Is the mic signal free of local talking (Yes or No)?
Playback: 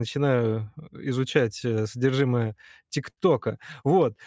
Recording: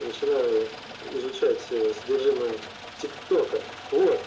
Yes